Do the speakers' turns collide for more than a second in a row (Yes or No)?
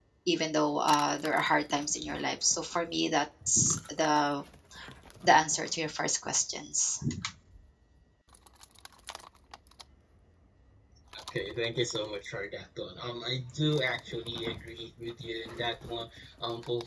No